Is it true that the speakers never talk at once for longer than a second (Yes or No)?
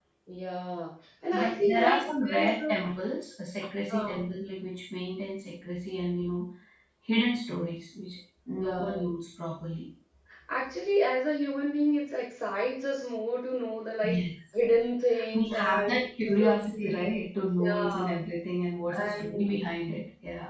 No